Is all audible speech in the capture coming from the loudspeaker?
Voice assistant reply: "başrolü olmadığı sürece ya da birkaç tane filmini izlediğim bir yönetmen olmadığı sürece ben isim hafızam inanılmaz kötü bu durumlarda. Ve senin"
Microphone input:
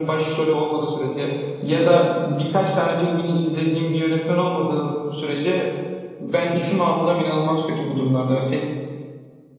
Yes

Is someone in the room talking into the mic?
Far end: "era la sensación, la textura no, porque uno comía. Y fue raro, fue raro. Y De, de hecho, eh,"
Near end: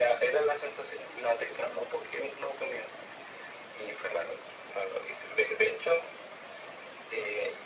No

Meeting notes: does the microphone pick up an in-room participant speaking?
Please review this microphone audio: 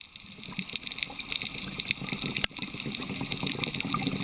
No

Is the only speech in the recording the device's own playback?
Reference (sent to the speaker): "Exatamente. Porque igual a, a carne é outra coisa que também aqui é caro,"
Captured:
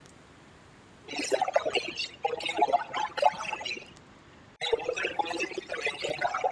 Yes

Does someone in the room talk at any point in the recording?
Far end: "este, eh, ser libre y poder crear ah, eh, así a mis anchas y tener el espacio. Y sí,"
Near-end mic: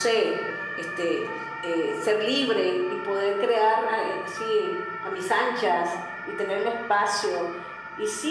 No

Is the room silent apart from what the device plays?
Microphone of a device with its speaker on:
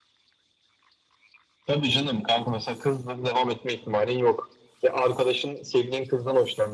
Yes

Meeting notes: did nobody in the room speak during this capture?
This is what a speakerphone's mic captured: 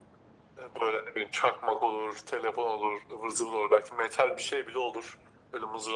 Yes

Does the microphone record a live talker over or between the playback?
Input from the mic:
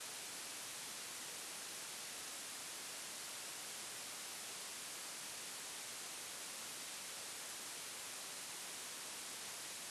No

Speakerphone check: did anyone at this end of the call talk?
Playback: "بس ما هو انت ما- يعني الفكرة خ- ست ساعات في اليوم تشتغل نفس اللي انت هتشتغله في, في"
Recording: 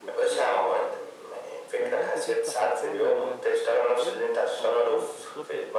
Yes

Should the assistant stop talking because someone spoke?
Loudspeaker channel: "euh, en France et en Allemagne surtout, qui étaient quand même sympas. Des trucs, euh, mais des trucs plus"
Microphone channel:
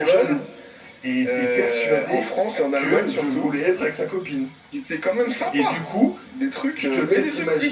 Yes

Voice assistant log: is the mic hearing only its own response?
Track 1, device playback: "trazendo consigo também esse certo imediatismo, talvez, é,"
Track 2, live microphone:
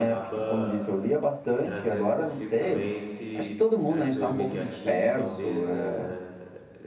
No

